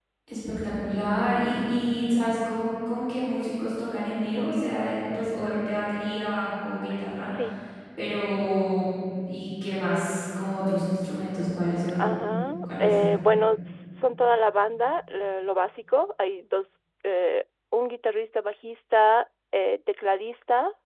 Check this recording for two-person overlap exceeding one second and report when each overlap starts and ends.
none

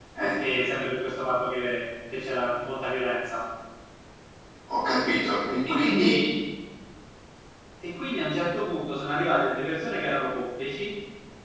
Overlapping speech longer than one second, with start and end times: none

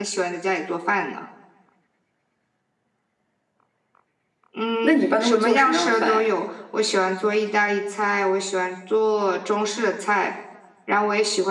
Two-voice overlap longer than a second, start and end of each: 4.8-6.3

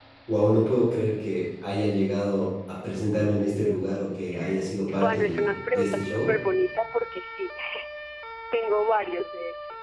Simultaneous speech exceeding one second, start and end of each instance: 4.9-6.3

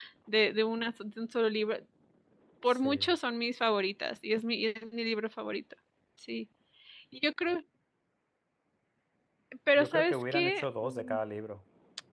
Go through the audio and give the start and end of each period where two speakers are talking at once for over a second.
9.8-11.2

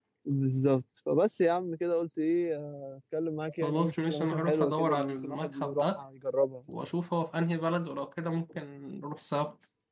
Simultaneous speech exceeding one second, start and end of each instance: 3.6-6.0

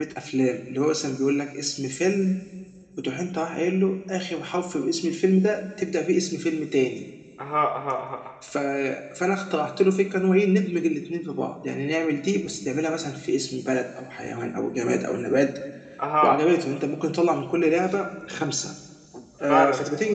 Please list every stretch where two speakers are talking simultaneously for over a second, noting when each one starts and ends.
none

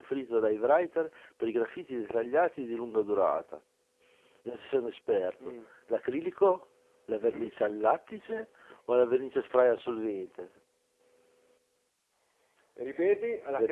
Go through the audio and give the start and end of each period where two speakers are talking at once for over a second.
none

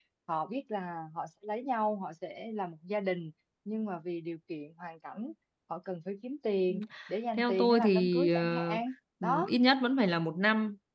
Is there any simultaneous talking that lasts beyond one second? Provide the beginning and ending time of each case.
7.4-8.7

